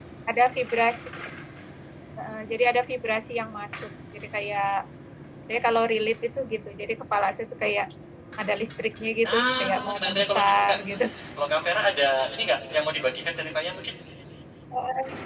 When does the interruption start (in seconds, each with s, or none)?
9.2 s